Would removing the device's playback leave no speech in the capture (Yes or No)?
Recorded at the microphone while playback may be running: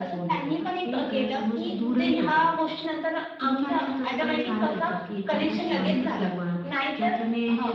No